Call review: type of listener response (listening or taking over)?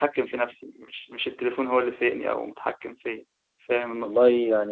taking over